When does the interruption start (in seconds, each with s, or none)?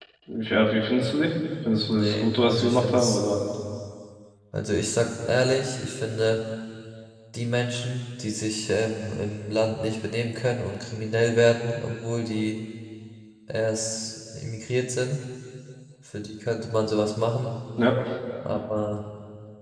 1.8 s